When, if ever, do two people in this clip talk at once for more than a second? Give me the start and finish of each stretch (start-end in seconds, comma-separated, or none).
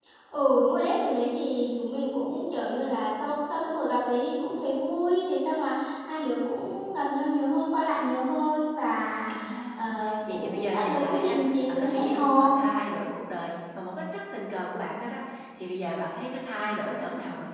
10.3-12.5